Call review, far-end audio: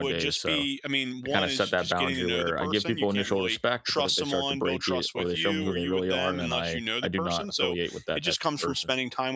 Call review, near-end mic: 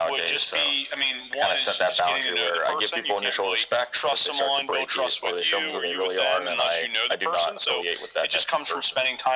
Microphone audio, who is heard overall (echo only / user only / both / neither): echo only